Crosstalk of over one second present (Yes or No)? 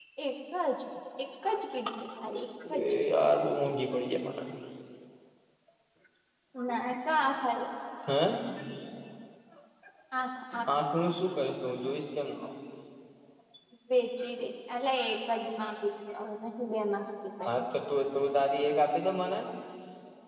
No